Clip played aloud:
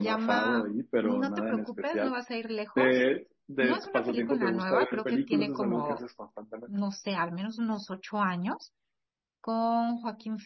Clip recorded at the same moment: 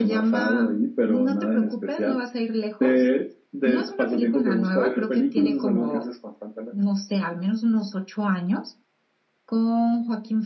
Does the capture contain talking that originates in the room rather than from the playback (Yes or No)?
No